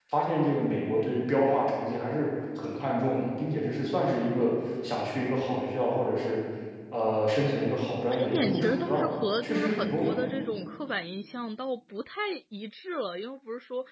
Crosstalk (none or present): present